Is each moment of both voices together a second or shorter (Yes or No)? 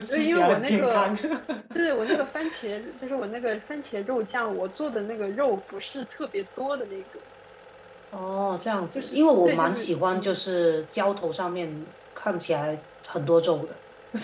No